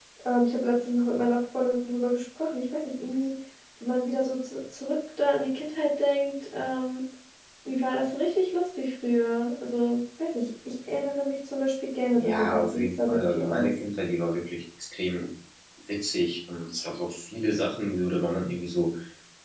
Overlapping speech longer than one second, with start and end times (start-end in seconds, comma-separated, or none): 12.1-13.7